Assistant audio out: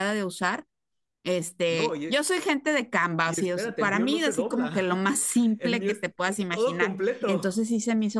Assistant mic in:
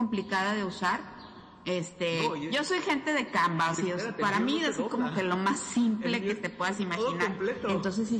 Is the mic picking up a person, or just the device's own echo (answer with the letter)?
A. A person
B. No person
B